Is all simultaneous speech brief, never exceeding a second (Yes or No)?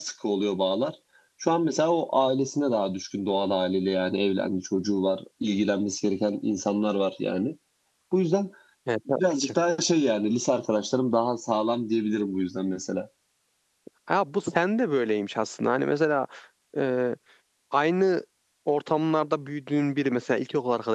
Yes